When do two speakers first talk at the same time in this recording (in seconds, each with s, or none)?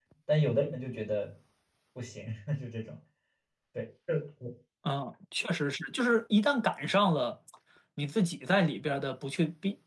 none